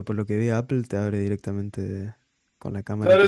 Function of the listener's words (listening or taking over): taking over